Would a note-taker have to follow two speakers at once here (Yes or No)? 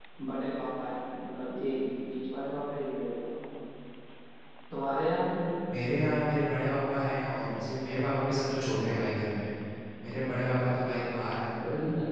No